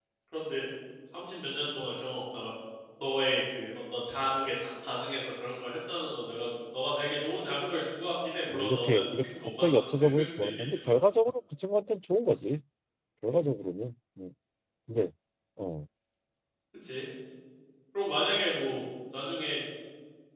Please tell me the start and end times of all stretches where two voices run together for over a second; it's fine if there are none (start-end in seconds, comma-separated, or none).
8.5-10.9